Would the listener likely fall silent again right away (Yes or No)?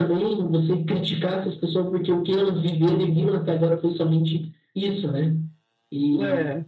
Yes